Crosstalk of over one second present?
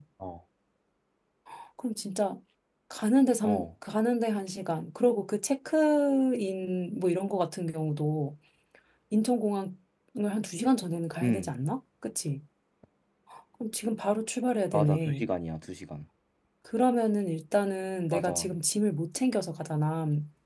No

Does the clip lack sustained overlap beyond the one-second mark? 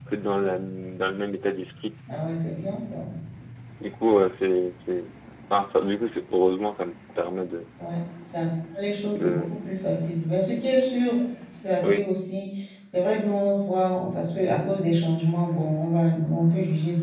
Yes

